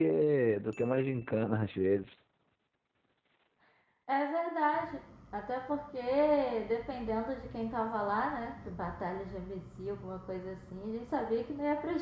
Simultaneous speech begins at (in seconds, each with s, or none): none